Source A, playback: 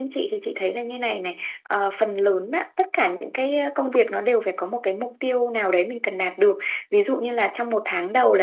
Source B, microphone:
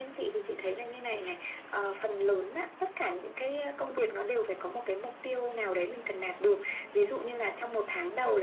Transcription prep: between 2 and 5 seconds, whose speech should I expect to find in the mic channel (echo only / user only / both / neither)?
echo only